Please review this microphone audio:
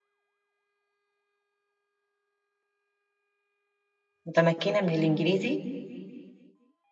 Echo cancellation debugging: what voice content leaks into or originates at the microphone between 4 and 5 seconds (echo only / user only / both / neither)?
user only